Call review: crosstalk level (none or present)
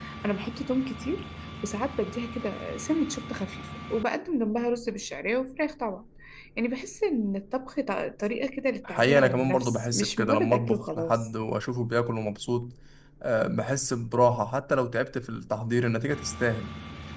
present